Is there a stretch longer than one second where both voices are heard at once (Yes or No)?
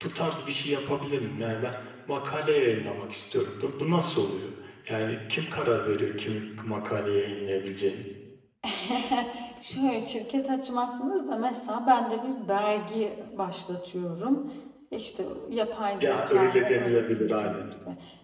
Yes